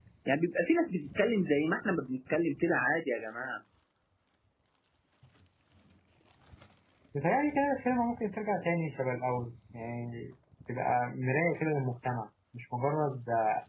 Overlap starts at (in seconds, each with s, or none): none